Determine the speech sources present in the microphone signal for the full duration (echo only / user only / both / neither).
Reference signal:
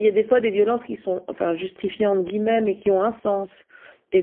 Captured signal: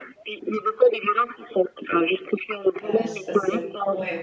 both